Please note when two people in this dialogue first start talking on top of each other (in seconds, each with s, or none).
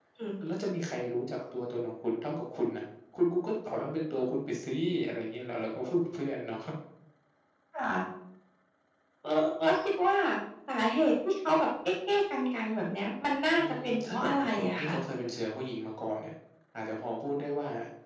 13.6 s